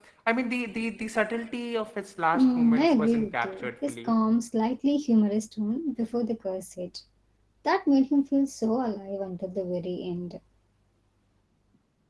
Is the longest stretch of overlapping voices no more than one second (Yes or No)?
No